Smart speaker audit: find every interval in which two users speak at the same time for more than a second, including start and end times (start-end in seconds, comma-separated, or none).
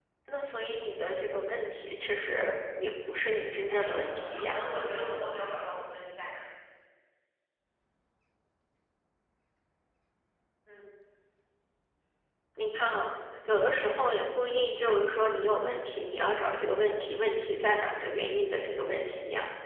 3.3-4.6